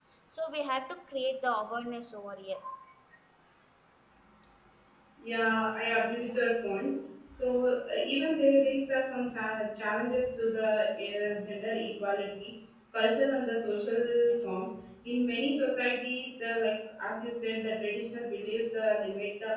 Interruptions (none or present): none